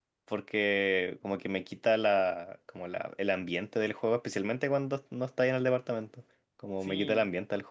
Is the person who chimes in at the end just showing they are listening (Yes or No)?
Yes